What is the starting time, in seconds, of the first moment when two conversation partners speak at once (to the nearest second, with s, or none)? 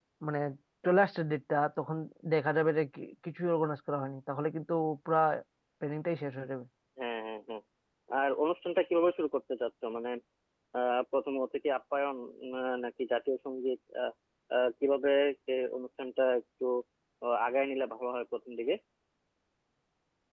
none